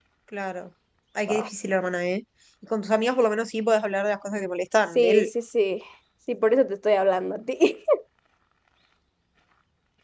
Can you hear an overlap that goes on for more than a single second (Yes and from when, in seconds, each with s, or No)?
No